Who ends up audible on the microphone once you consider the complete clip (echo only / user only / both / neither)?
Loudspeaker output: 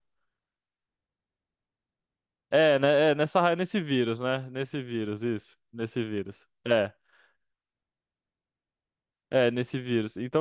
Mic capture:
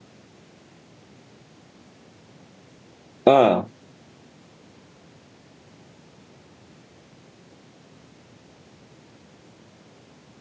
user only